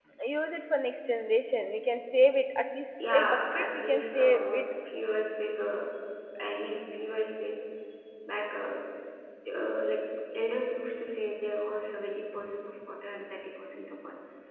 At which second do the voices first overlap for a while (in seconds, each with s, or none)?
3.0 s